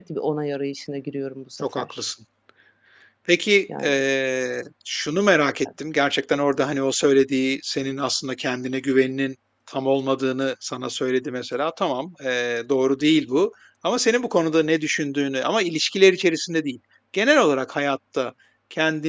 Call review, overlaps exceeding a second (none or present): none